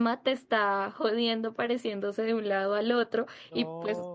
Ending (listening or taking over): listening